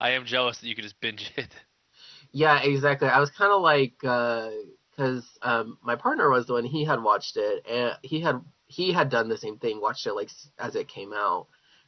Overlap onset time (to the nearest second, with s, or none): none